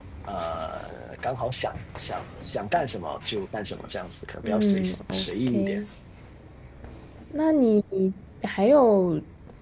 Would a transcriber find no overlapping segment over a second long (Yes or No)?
No